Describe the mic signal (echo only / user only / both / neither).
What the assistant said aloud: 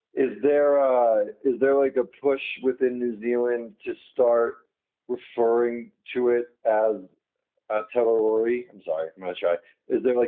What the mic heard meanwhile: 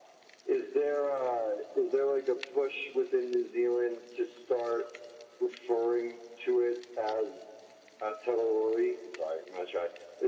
echo only